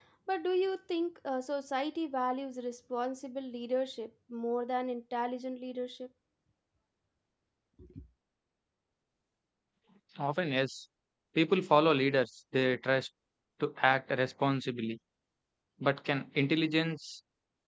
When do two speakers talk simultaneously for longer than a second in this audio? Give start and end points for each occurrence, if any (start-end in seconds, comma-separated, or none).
none